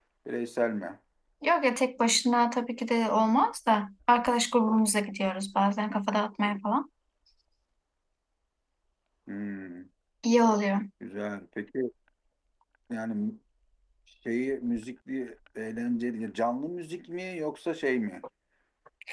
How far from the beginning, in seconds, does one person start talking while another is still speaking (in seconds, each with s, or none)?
none